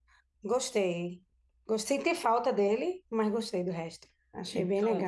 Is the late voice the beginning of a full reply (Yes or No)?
Yes